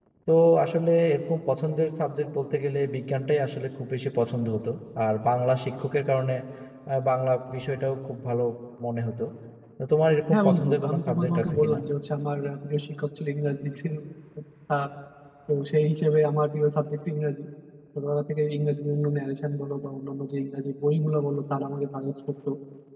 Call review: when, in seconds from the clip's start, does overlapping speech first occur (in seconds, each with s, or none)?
10.3 s